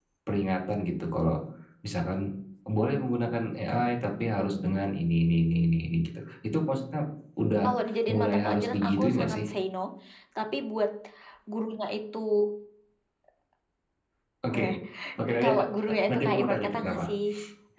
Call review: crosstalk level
present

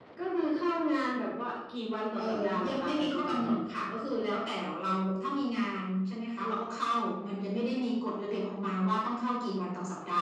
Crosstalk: present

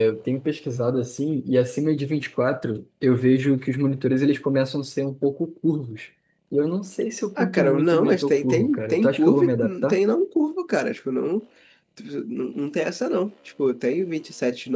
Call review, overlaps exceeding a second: present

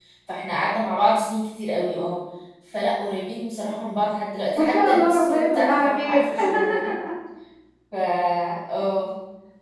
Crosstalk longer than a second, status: present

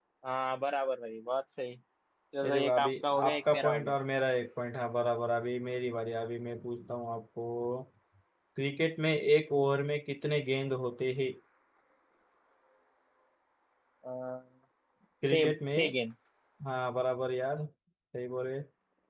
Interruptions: present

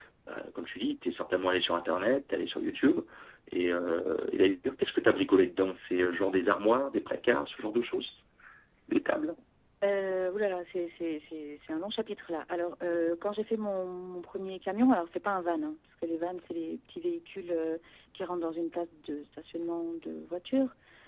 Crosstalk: none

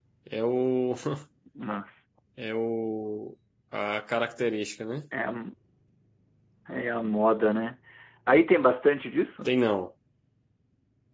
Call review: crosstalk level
none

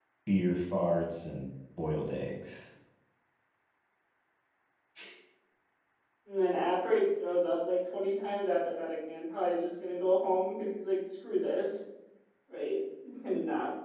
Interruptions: none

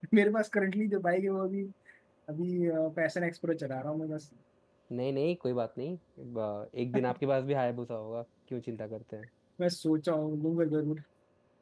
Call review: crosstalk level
none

